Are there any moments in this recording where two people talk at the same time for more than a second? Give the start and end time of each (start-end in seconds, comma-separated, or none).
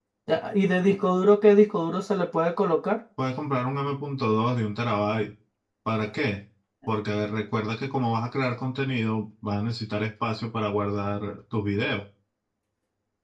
none